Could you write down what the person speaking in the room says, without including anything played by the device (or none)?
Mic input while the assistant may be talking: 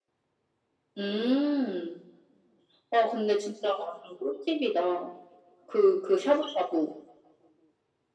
none